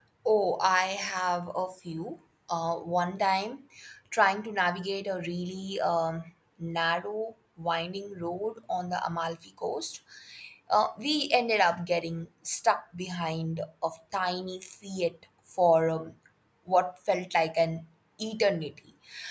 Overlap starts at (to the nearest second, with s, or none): none